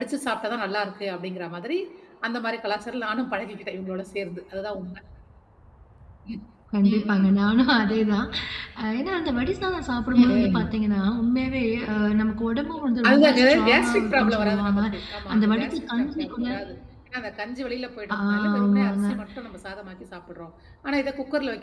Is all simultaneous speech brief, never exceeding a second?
No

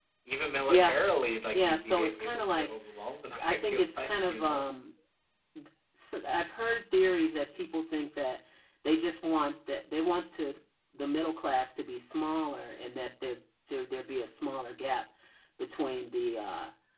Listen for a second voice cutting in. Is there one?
Yes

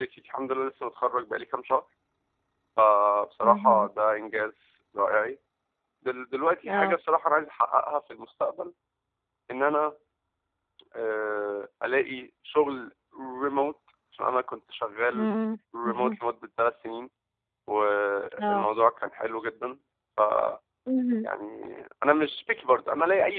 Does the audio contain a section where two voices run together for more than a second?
No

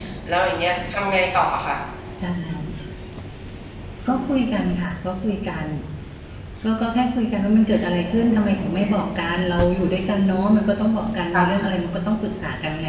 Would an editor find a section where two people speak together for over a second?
No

